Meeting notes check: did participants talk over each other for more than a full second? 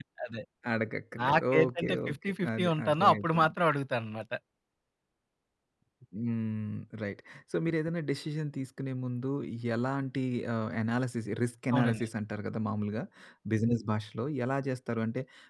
Yes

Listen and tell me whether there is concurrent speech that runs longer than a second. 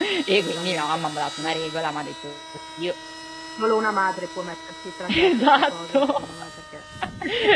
Yes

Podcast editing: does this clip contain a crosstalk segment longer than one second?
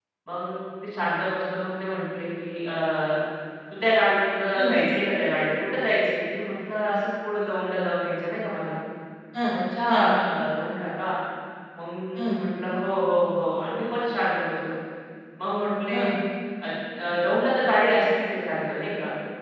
No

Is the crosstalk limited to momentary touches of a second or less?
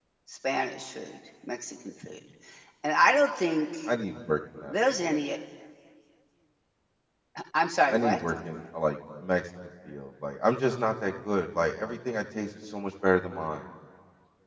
Yes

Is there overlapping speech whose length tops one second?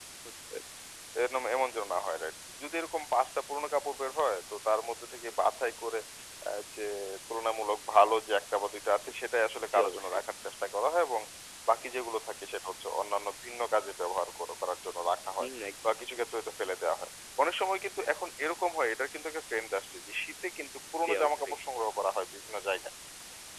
No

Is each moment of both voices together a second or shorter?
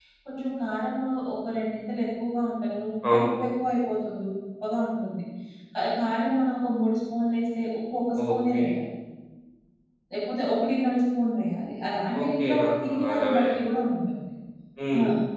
No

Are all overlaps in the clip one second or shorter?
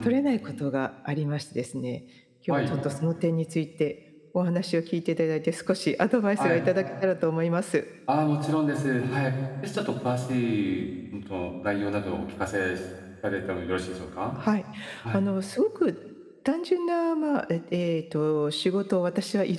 Yes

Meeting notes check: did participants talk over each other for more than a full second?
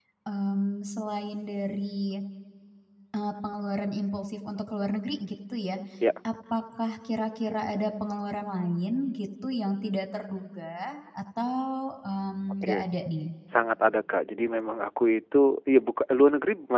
No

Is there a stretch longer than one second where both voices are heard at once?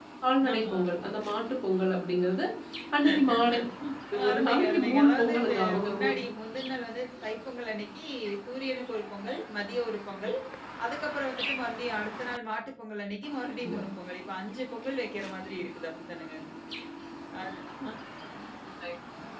Yes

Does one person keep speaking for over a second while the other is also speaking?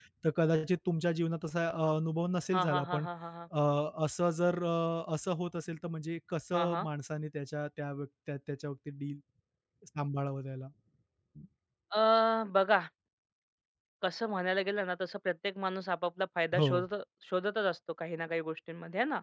No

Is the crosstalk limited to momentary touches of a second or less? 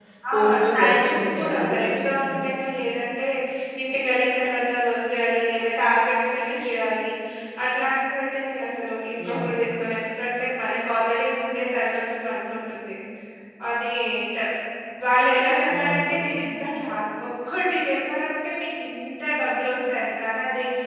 No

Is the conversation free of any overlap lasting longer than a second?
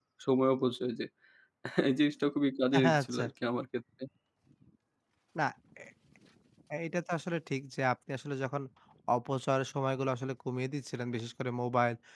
Yes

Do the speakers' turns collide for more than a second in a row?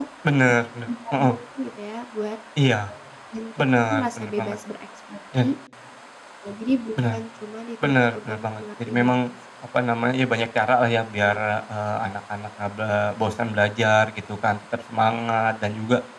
Yes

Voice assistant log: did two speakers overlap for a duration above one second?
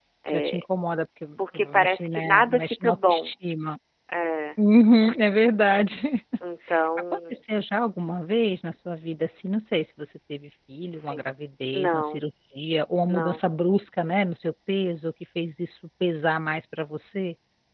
Yes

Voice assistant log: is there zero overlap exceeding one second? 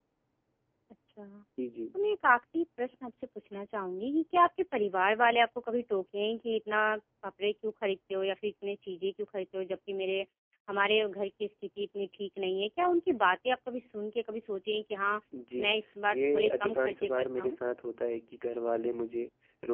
No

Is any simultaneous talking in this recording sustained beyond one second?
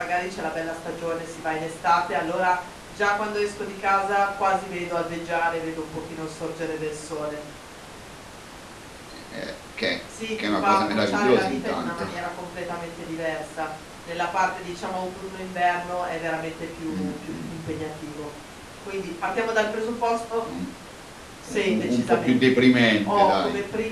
Yes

